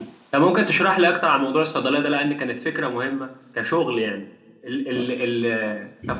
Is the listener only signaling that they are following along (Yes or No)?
Yes